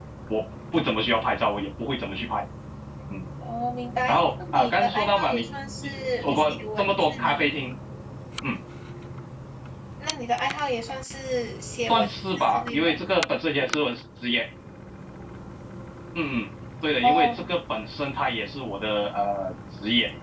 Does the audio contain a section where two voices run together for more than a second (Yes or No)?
Yes